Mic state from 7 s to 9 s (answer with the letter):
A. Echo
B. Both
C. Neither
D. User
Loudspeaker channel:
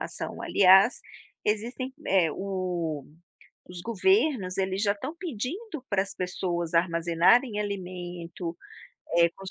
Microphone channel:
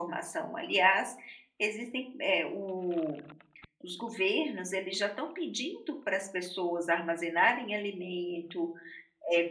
A